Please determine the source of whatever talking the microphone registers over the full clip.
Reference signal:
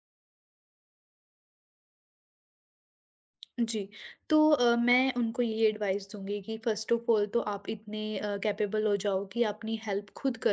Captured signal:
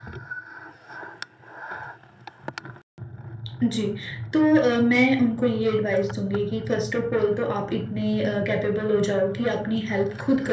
echo only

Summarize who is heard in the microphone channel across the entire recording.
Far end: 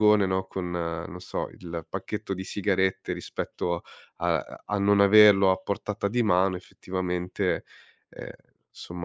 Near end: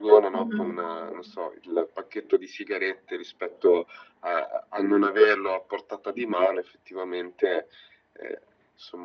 both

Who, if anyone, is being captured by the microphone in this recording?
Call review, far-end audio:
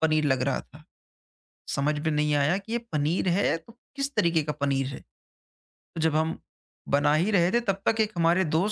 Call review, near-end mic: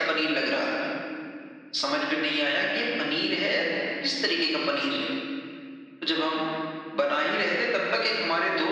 echo only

